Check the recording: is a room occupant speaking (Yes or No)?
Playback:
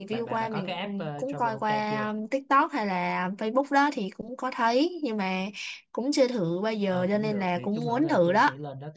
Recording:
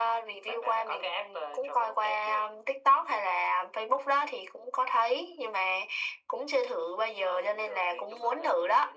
No